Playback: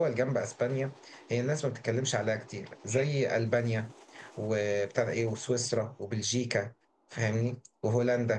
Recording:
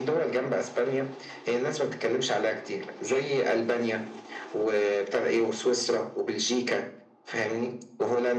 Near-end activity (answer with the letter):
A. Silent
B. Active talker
A